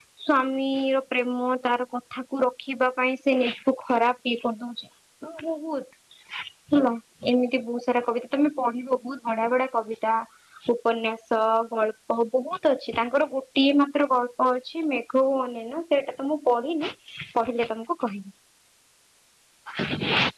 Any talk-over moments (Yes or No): No